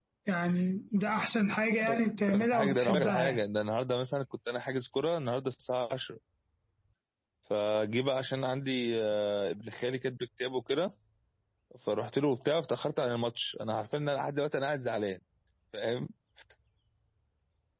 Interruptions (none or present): present